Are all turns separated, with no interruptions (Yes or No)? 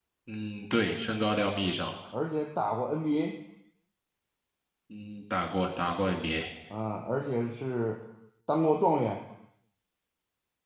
Yes